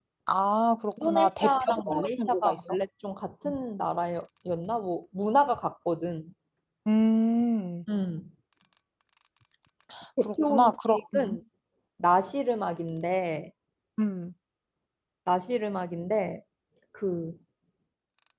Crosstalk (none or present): present